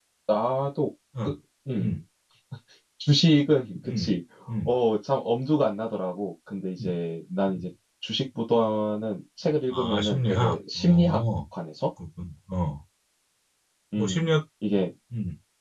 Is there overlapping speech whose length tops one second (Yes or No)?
Yes